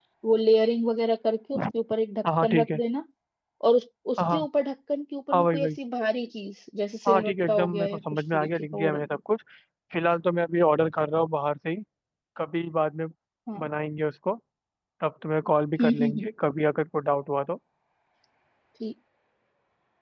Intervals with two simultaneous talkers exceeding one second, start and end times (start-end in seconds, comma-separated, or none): 7.1-9.2